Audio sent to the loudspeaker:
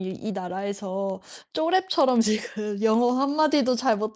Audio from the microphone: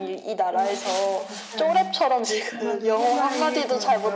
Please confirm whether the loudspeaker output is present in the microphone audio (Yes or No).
Yes